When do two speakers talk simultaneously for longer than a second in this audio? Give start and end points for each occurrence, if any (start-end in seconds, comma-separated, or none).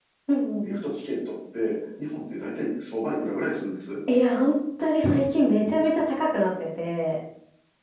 none